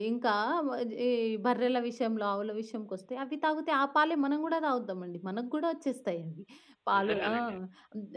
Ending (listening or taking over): listening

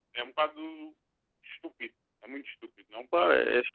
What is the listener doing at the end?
taking over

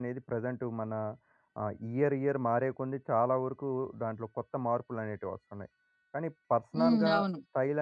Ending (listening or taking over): listening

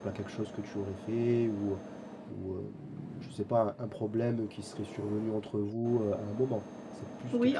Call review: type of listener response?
taking over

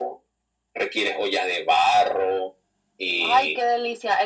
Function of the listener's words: taking over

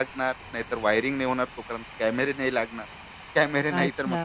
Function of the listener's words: taking over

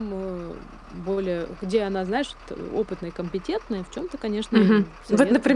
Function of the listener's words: taking over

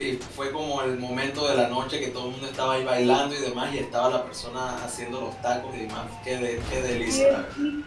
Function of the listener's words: taking over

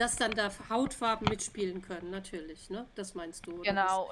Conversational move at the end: taking over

